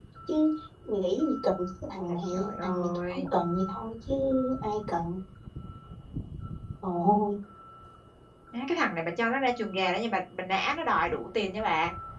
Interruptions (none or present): present